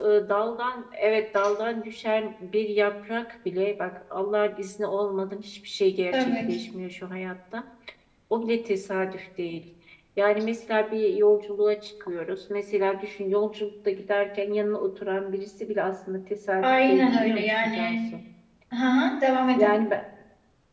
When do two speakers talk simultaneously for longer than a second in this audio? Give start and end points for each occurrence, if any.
16.6-18.0

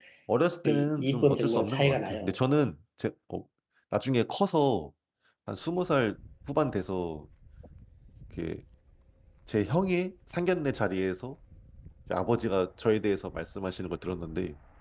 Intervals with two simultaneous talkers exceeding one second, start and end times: 0.6-2.4

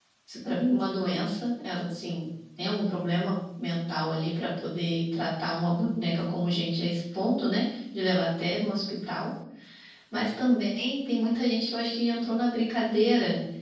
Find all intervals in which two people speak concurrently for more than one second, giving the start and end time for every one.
none

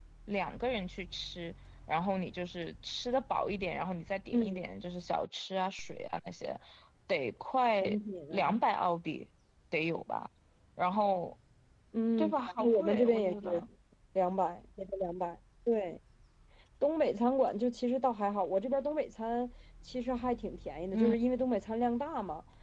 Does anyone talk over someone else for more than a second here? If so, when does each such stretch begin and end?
12.2-13.7

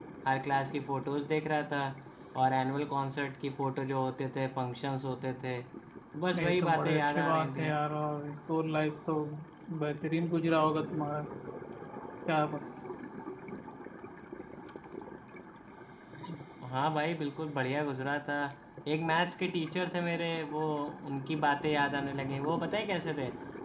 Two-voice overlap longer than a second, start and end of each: 6.4-7.7

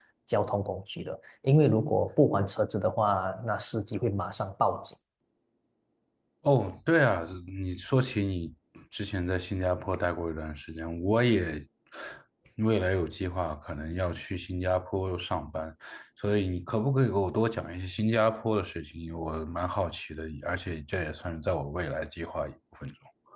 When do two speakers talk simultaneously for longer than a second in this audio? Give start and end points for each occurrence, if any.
none

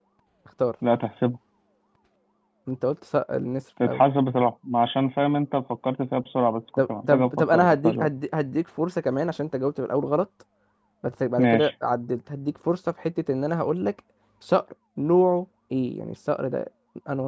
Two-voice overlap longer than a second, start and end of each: 6.8-8.1

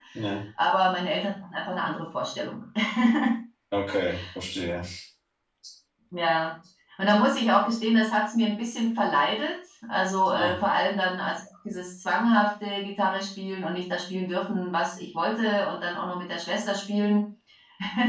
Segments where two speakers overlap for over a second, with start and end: none

